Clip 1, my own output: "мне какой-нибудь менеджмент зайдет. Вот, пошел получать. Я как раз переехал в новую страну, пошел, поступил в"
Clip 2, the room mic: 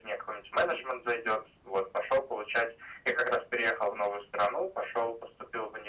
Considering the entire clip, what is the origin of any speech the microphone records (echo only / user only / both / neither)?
echo only